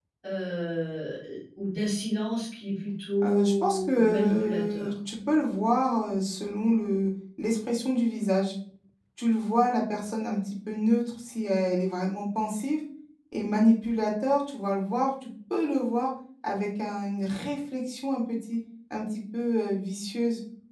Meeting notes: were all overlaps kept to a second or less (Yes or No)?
No